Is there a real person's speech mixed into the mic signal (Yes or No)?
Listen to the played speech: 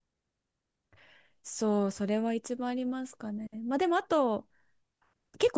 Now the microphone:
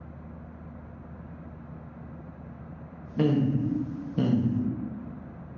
Yes